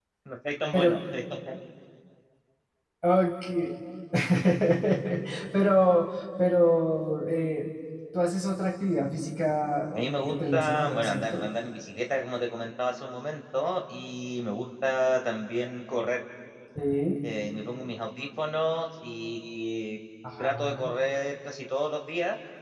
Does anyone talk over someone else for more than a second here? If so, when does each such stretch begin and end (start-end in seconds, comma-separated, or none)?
9.9-11.5